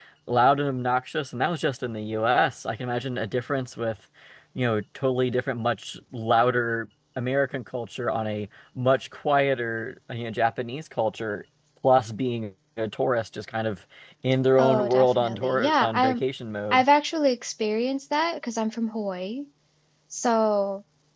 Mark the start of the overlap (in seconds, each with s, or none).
14.6 s